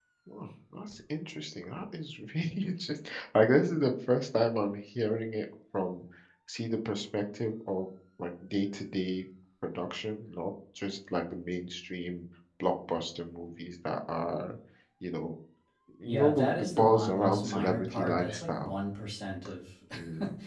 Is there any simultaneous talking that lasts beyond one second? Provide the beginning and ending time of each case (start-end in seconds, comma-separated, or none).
16.1-18.7